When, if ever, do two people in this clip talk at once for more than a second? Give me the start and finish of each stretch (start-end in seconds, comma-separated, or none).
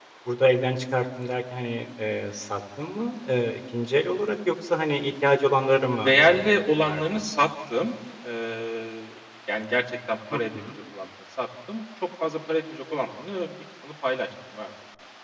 5.8-7.2